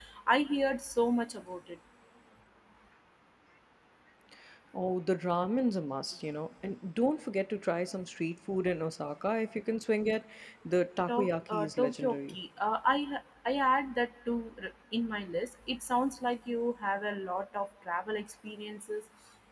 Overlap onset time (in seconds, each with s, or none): 11.1 s